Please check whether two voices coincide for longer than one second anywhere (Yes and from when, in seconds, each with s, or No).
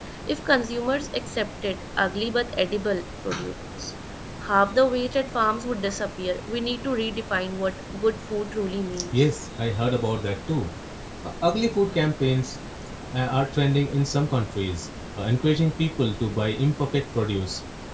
No